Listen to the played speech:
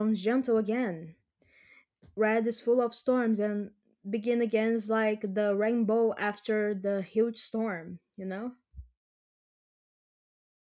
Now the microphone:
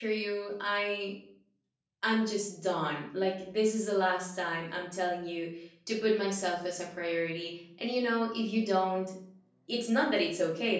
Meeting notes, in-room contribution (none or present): present